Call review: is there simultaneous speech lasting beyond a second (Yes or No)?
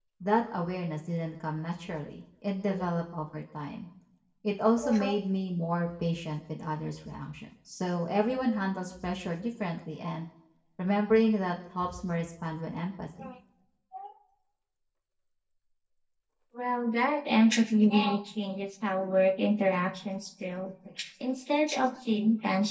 No